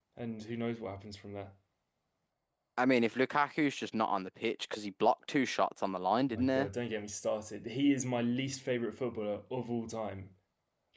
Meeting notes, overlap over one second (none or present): none